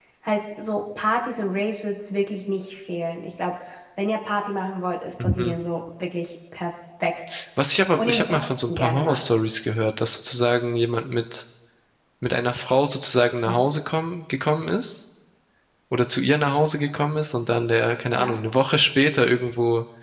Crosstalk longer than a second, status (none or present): present